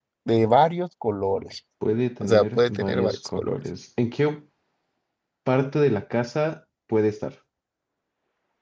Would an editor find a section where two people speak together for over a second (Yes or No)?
Yes